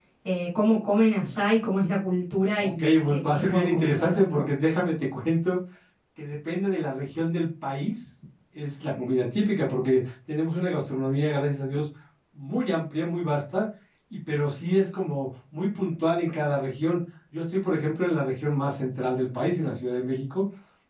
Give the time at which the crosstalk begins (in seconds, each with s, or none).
2.6 s